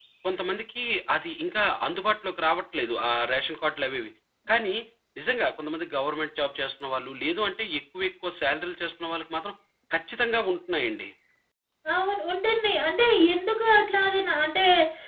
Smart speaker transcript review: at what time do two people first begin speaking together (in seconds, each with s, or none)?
none